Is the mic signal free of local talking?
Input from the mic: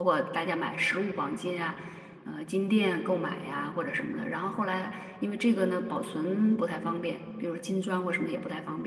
No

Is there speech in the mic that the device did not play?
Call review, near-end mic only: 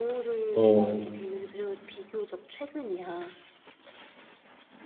Yes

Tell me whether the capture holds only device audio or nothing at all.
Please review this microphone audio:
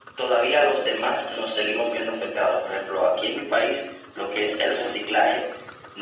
Yes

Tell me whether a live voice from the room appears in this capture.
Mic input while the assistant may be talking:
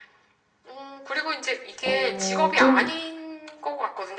Yes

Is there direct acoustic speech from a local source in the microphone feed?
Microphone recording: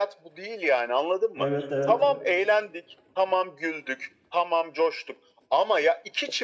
Yes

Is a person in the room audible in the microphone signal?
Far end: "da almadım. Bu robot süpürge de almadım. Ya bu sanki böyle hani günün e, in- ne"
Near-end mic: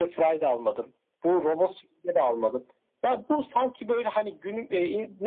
No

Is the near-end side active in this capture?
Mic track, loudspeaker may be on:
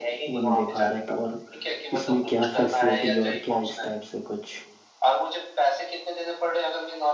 Yes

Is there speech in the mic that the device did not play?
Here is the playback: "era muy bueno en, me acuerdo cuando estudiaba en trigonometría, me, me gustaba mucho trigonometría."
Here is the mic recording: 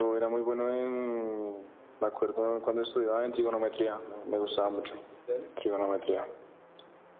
Yes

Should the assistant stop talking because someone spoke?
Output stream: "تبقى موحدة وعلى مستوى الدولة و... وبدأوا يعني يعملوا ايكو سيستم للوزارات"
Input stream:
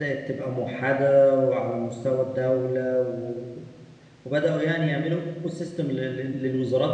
No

